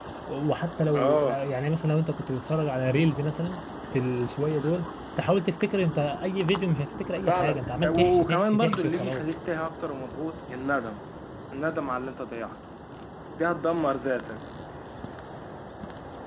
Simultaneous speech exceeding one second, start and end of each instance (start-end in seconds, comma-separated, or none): 7.3-9.2